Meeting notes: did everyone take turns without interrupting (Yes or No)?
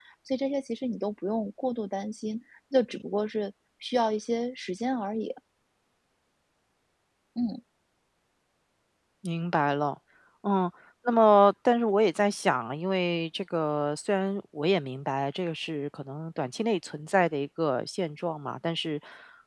Yes